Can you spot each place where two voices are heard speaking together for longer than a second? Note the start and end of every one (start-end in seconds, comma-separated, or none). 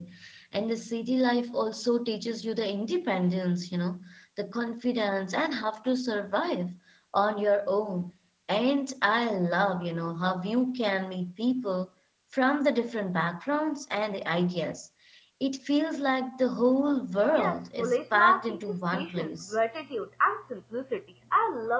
17.4-19.5